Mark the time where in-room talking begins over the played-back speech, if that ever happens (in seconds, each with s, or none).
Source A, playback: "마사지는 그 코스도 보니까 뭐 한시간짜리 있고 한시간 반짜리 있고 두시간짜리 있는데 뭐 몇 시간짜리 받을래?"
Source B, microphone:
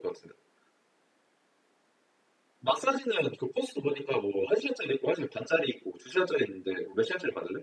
none